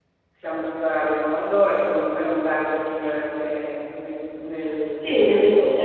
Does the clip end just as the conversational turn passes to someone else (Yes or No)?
Yes